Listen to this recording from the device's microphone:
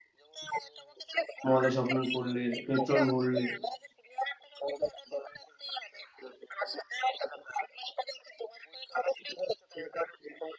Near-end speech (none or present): present